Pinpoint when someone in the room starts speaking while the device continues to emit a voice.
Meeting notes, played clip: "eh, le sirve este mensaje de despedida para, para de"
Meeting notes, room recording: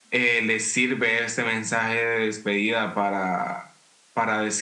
none

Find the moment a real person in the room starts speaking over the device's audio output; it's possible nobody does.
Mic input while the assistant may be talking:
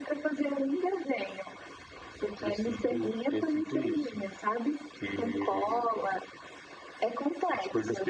none

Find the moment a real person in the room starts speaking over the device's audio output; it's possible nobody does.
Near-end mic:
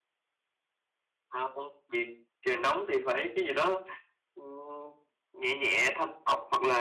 none

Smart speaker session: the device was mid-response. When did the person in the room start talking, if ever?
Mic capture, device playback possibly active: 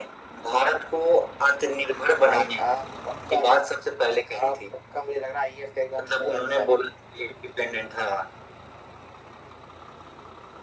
none

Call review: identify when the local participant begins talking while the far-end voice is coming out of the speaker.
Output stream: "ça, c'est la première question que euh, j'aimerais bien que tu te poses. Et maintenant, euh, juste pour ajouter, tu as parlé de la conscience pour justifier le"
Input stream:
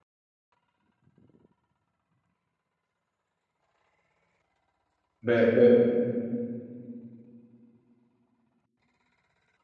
5.2 s

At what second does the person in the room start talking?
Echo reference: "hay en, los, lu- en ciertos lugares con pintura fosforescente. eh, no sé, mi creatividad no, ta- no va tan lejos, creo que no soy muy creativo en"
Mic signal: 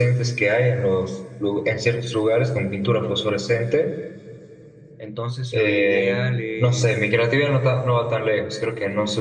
5.0 s

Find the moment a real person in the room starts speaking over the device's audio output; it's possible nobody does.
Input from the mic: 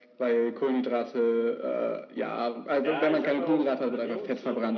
2.8 s

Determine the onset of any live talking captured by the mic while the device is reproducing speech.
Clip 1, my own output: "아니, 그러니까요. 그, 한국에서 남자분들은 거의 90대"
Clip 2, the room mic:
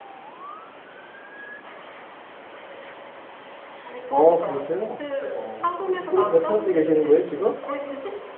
4.1 s

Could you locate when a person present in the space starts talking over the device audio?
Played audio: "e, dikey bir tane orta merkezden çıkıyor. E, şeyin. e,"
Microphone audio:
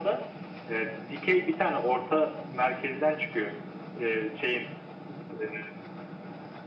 none

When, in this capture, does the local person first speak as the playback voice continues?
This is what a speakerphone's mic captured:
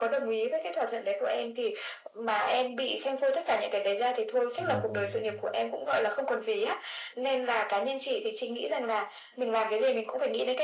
4.5 s

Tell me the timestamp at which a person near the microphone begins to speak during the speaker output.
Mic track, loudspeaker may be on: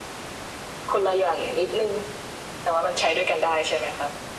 none

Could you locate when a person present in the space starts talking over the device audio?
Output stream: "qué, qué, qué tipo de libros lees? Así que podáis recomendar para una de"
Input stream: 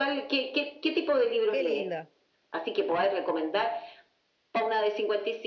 1.5 s

